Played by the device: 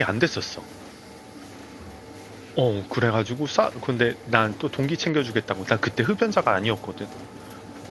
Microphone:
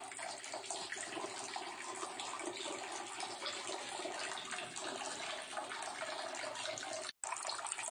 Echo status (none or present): none